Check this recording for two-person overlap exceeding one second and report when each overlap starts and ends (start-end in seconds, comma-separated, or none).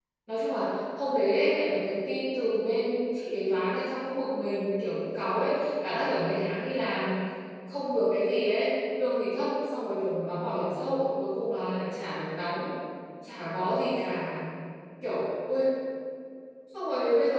none